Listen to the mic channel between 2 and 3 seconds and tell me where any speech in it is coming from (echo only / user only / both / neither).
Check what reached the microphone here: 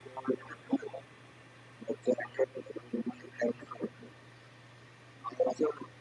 echo only